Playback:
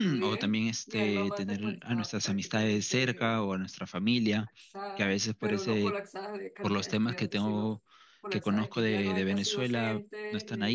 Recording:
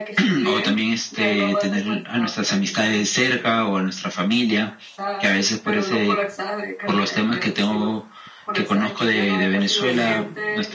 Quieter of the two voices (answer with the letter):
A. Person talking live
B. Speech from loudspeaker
A